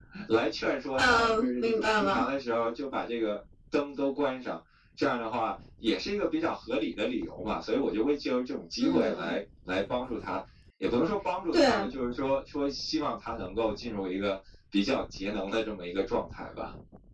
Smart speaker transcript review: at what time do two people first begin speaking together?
1.0 s

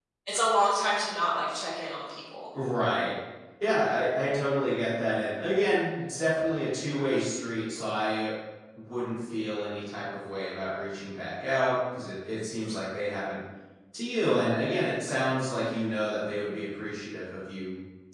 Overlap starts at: none

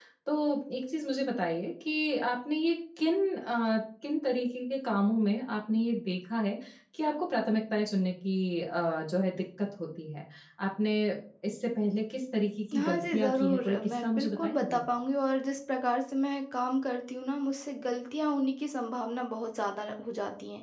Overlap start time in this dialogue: 12.7 s

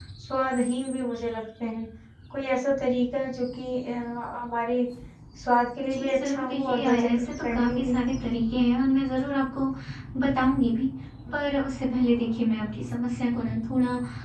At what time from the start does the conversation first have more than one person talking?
5.8 s

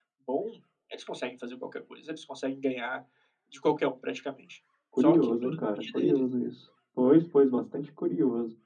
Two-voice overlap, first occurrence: 4.9 s

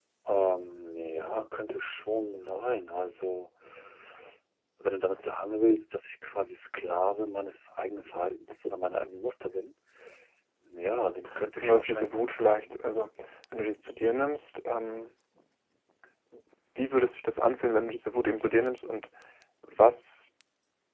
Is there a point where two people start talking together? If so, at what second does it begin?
11.6 s

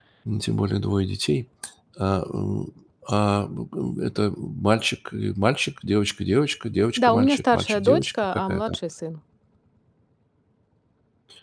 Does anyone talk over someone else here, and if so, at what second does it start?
7.0 s

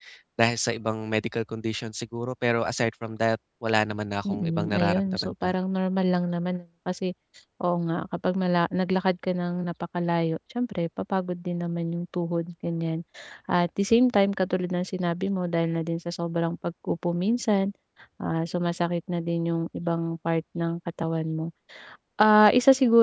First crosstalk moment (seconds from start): 4.2 s

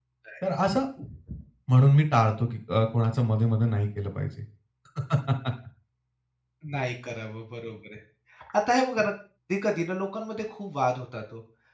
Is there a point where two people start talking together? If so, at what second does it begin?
none

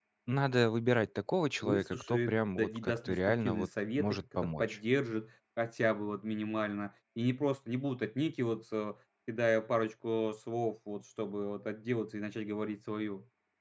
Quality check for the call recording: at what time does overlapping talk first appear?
1.6 s

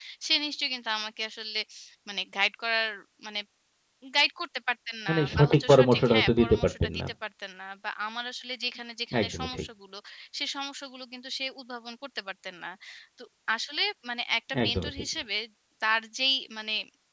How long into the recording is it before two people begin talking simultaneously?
5.1 s

